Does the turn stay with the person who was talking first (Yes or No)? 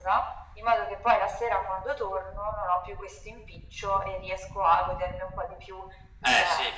No